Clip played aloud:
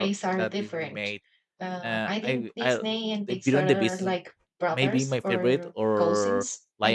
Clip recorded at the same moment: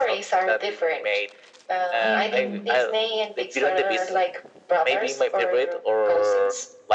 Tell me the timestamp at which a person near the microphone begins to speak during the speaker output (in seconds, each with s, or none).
2.0 s